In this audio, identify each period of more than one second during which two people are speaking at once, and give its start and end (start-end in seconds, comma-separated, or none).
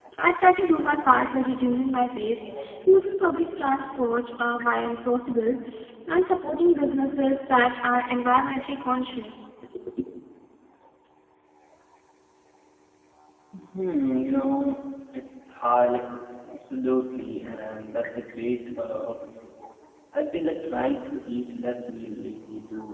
none